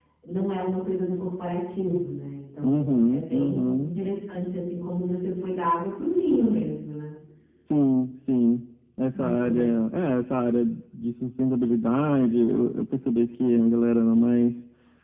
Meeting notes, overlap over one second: present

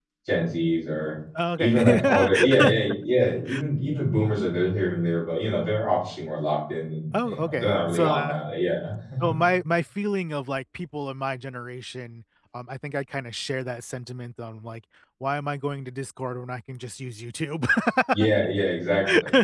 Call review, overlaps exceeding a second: present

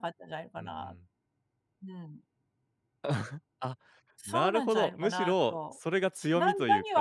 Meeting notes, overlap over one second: present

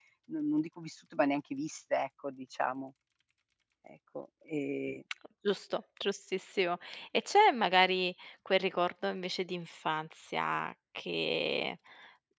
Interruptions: none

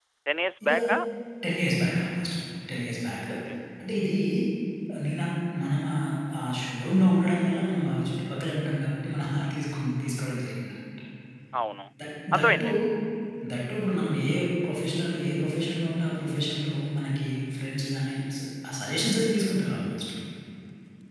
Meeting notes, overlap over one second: none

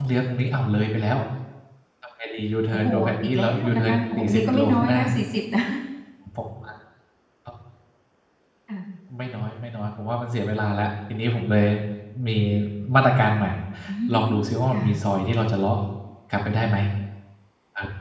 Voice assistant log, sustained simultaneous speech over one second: present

